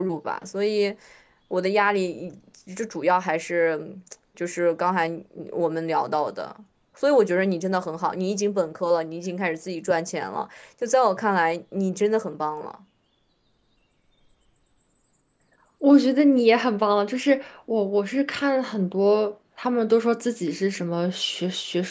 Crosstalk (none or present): none